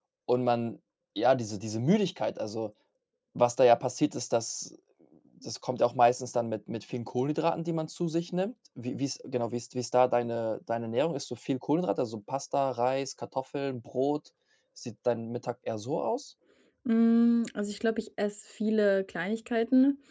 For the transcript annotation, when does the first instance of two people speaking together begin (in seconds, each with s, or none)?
none